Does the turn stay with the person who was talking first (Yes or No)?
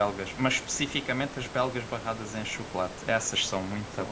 No